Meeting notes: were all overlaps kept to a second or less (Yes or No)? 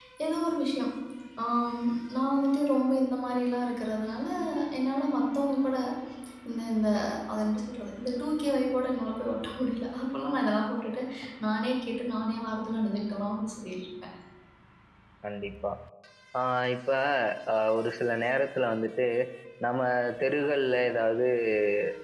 Yes